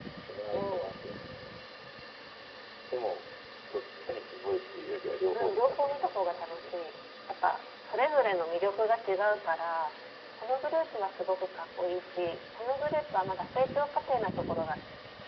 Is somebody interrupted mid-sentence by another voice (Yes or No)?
Yes